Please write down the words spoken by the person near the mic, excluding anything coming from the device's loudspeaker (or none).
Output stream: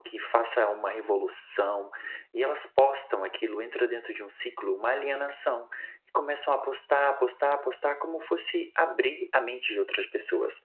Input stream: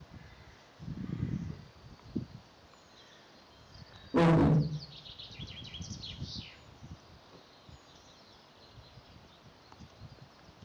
uhum.